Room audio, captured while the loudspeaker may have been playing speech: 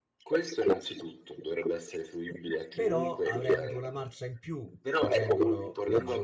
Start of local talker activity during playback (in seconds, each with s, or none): 2.7 s